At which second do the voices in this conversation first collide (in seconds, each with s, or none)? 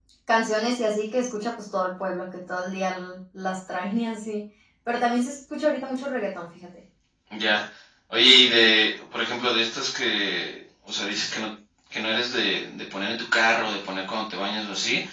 none